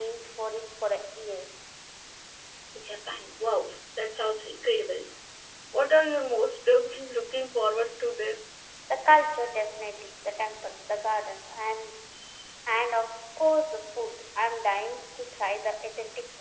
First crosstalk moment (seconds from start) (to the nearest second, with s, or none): none